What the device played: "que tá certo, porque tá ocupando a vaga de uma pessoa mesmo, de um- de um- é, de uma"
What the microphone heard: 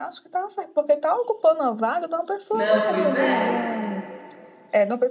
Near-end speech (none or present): present